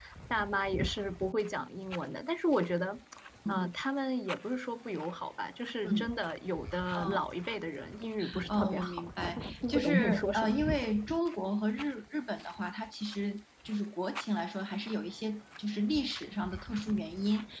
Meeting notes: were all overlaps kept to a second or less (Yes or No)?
No